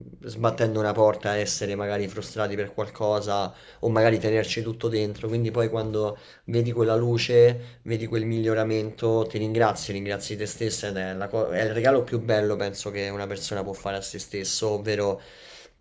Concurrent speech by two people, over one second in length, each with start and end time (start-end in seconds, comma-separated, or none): none